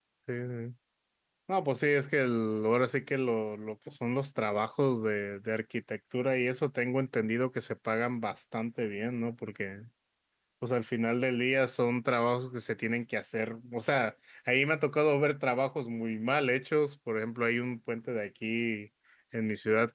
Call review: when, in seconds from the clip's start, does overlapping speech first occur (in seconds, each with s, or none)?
none